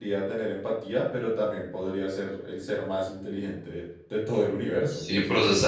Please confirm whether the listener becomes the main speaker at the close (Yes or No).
Yes